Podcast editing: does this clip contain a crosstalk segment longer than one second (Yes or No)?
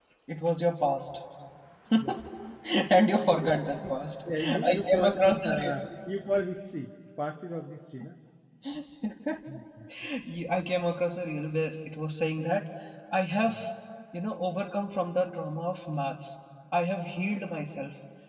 Yes